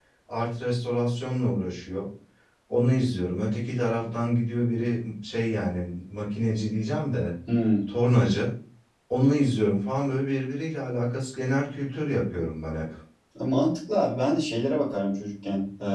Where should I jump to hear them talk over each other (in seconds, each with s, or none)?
none